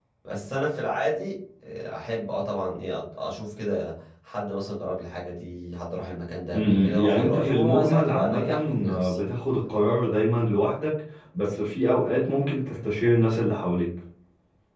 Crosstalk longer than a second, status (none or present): present